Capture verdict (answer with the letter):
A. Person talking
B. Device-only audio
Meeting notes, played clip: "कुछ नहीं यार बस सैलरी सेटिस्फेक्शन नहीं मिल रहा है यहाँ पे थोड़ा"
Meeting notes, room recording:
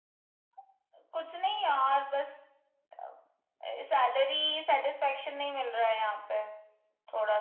B